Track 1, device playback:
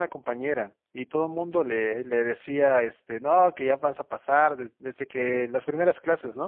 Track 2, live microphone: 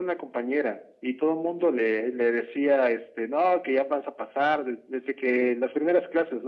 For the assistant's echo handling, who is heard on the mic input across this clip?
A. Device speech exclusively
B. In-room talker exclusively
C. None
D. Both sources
A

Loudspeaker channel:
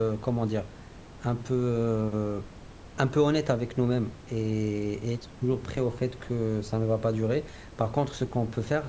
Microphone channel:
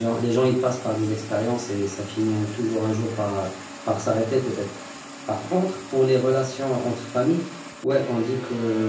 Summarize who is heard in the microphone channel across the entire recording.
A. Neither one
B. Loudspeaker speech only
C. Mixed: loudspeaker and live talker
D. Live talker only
D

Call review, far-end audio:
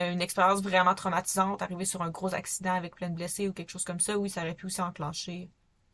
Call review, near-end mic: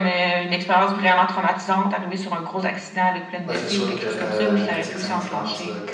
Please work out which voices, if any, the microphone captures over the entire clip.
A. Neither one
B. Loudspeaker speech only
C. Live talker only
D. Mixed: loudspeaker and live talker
D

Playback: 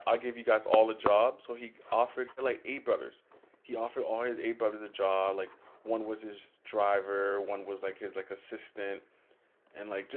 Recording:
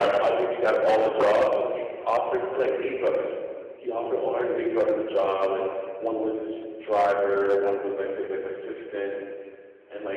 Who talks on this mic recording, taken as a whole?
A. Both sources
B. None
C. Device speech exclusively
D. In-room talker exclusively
C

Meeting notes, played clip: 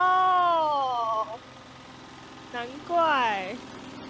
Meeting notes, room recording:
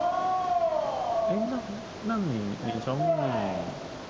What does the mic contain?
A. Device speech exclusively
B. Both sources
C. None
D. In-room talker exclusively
B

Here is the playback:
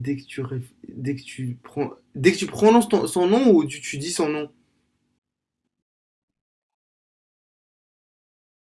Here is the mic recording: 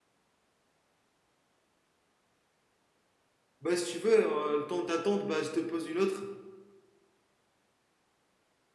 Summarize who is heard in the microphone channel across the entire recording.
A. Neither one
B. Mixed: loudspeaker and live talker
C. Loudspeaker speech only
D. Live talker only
D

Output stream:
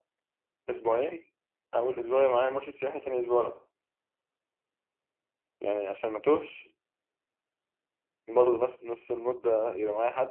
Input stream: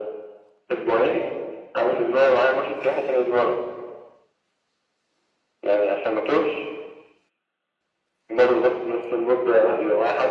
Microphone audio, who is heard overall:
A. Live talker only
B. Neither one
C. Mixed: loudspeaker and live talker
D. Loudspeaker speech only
D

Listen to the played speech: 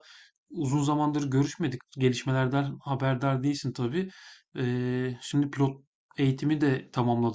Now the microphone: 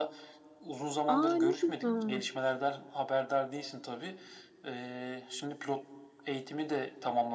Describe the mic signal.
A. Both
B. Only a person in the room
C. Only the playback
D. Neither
A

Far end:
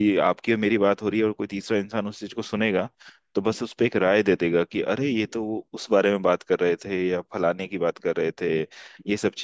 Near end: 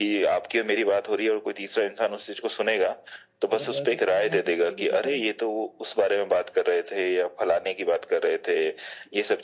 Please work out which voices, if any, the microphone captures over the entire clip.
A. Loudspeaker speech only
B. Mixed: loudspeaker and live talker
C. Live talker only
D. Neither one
B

